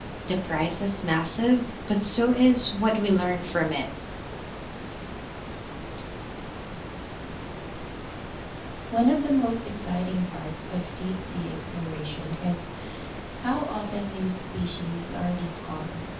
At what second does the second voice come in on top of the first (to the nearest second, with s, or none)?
none